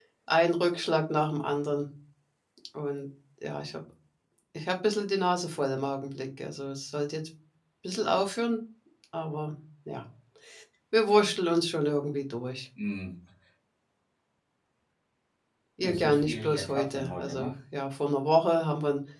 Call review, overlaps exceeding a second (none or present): present